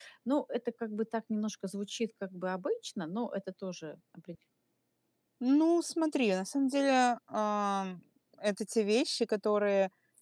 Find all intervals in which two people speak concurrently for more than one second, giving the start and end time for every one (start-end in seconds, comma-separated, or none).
none